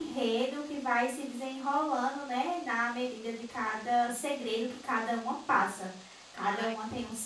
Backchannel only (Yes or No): Yes